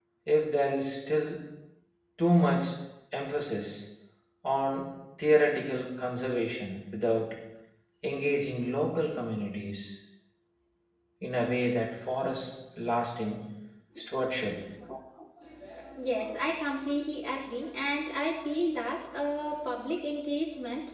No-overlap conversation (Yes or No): Yes